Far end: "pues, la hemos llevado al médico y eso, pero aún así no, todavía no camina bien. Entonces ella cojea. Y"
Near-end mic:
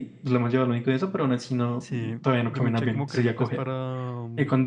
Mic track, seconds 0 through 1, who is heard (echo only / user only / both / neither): echo only